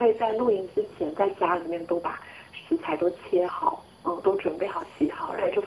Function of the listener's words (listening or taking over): listening